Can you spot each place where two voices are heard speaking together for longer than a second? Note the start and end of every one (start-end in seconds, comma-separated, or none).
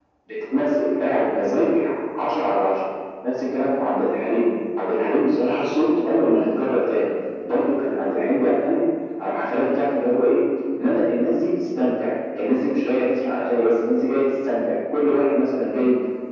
none